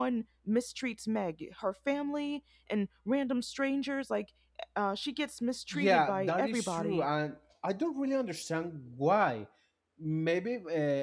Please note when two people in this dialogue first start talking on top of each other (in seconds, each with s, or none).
5.7 s